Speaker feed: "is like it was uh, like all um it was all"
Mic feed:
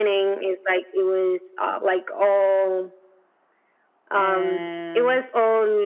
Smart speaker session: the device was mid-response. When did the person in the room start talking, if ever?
4.1 s

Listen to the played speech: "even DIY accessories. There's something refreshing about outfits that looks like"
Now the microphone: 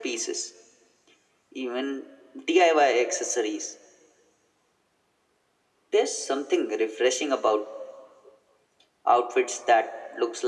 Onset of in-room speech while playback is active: none

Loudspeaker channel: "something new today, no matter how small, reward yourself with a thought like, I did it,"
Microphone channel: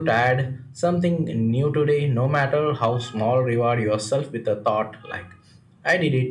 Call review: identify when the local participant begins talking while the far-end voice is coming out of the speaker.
none

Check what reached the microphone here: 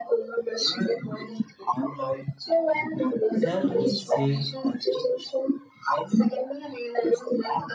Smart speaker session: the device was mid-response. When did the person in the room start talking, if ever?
3.3 s

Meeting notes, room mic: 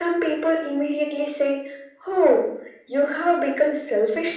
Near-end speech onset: none

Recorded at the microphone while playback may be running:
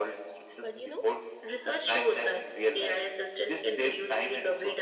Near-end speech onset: 0.6 s

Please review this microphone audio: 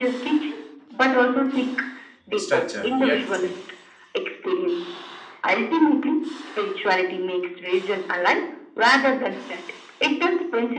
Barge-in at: 2.3 s

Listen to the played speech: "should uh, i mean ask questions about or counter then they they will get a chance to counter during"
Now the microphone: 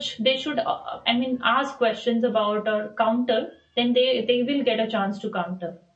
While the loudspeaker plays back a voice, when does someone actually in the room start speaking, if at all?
none

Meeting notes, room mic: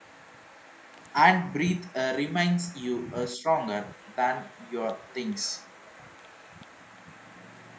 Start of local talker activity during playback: 1.1 s

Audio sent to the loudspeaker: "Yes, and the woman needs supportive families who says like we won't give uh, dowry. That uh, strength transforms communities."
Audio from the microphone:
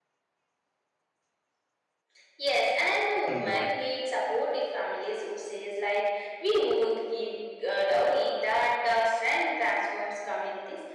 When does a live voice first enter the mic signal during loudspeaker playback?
3.2 s

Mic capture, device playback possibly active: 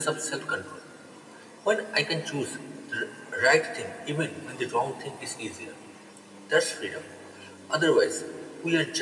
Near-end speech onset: none

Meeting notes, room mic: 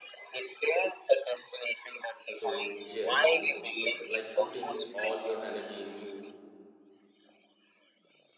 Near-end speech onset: 2.2 s

